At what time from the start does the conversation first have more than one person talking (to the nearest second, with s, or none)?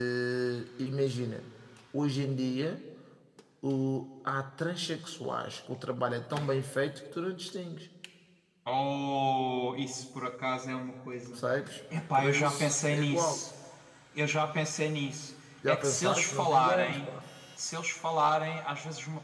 12 s